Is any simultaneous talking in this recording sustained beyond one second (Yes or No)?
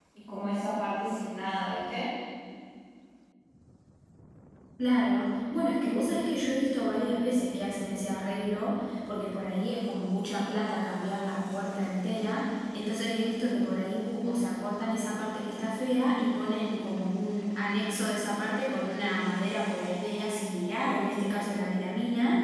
No